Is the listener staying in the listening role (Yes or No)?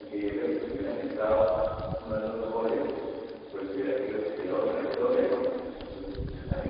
Yes